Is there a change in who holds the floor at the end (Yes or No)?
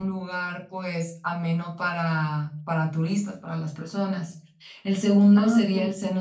No